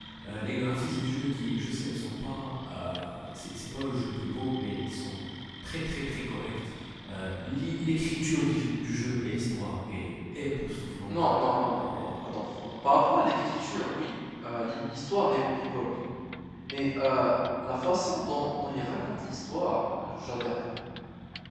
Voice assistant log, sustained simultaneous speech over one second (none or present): none